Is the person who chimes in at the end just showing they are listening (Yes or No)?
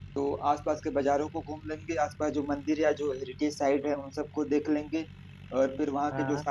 Yes